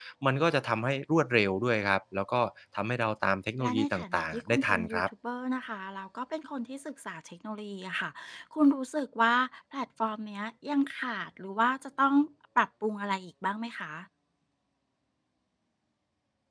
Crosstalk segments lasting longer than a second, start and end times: 3.6-5.0

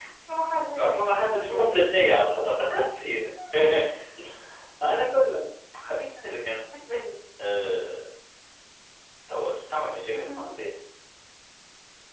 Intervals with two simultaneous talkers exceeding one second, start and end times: none

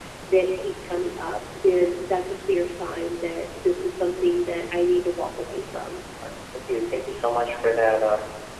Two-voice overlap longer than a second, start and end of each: none

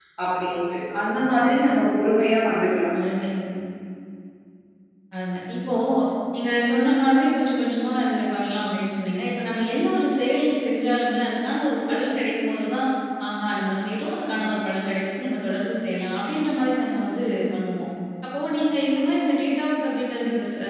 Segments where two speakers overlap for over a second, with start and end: none

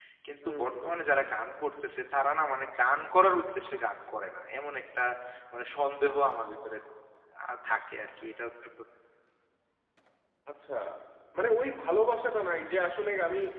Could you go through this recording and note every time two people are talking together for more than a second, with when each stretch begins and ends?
none

